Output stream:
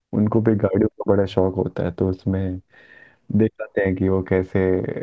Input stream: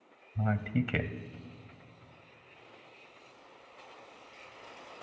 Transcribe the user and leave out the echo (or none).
हाँ ठीक है